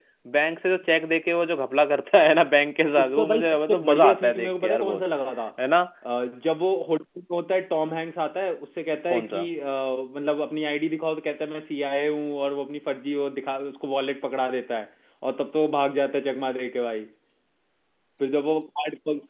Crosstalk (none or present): present